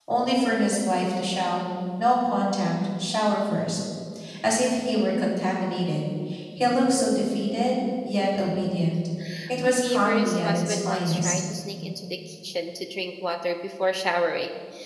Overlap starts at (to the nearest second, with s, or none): 10 s